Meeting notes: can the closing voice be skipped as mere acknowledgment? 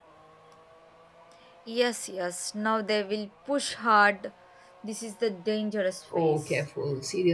No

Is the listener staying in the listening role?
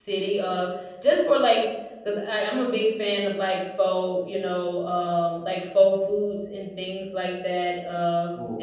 Yes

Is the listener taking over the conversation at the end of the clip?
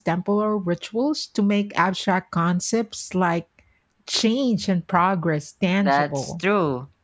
Yes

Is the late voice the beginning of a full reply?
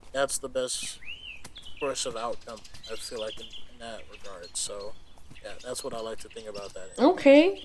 Yes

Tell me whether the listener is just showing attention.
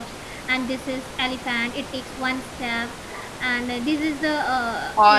Yes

